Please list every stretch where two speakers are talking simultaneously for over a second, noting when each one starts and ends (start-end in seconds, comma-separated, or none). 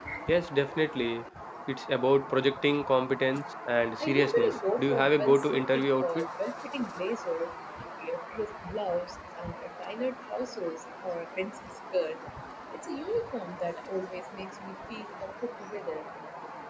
4.0-6.2